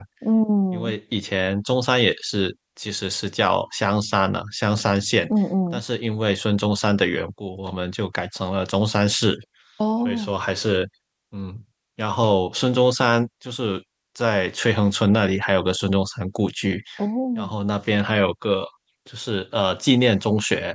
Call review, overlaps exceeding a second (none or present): none